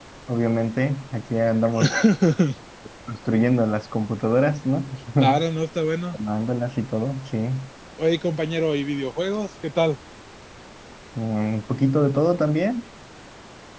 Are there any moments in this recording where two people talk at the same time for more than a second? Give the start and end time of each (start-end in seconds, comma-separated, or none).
none